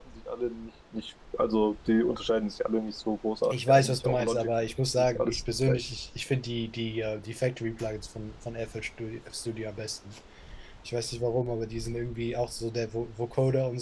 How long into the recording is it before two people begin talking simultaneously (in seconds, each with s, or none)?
3.4 s